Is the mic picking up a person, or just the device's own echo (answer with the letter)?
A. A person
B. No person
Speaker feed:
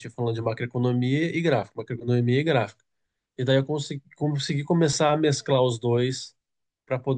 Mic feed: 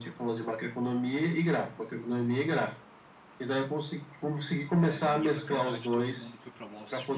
A